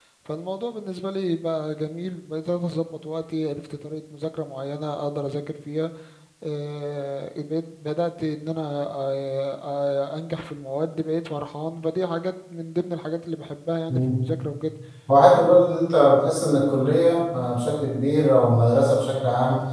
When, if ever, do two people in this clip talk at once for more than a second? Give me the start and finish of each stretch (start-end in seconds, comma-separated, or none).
none